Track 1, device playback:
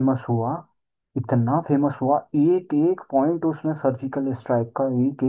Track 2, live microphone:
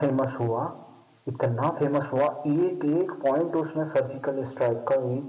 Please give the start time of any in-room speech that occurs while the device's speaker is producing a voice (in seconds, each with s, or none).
none